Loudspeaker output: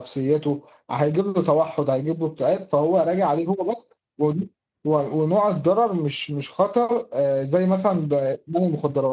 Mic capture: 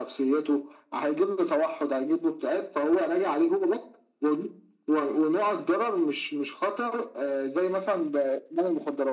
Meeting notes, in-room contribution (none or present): none